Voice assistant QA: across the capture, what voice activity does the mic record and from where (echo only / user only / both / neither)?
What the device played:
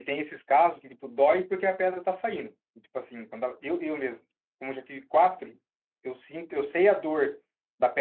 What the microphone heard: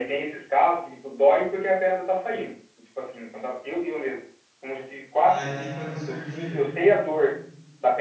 both